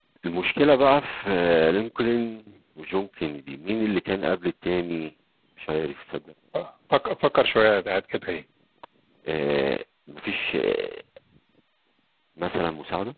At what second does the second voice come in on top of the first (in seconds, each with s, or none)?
none